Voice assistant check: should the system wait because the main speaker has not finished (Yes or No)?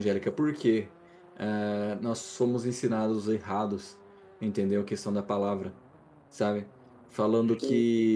Yes